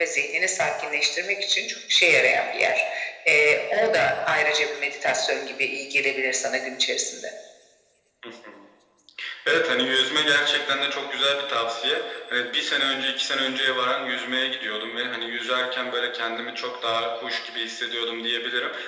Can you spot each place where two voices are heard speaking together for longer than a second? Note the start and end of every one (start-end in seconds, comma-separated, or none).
none